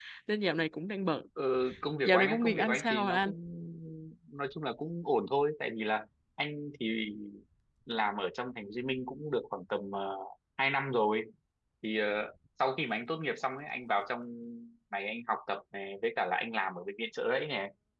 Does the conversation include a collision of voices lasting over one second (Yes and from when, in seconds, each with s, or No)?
Yes, from 2.0 s